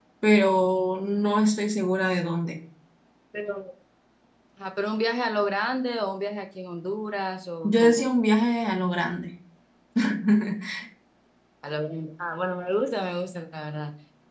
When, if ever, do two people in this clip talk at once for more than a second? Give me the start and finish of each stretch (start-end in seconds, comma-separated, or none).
none